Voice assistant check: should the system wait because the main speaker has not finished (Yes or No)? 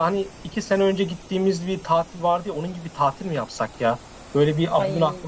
Yes